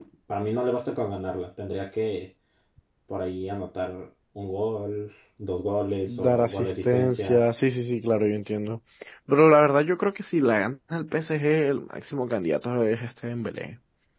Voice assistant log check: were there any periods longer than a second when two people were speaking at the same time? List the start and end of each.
6.1-7.4

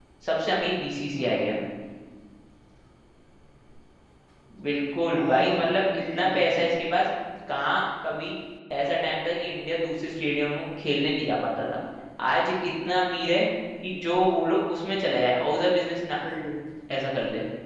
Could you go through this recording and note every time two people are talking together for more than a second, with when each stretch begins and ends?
5.1-6.5

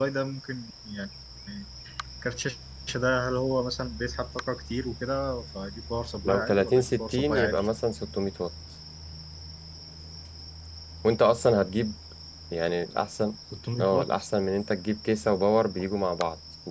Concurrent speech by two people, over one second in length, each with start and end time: 6.2-7.7

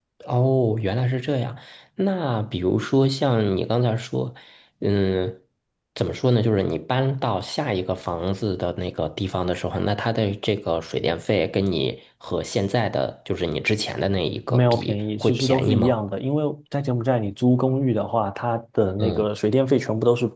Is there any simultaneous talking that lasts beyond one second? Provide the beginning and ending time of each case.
14.5-15.9

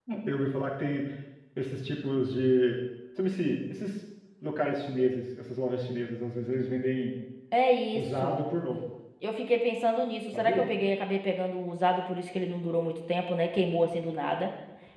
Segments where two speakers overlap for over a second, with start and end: none

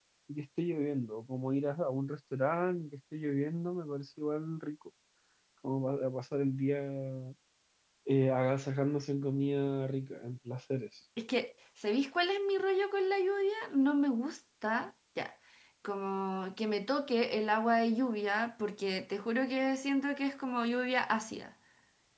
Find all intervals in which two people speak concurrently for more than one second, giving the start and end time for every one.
none

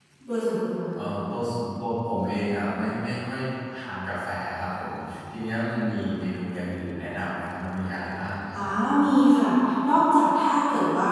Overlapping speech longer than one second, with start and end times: none

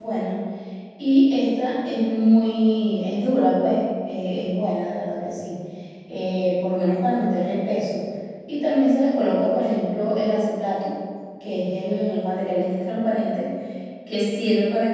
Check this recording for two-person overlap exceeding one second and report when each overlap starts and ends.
none

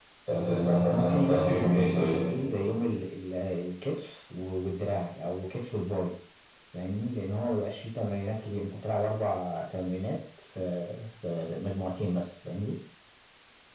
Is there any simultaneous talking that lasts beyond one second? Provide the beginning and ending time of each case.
0.8-2.1

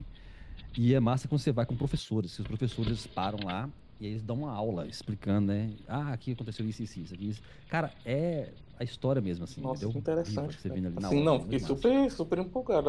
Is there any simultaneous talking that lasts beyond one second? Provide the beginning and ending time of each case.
9.6-11.8

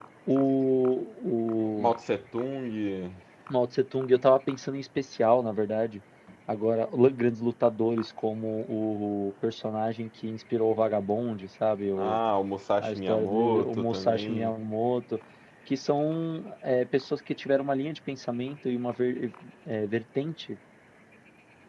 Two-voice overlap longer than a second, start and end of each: 12.8-14.5

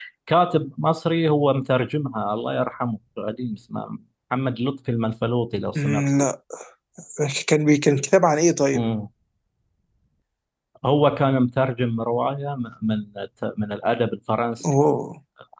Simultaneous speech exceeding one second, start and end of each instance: none

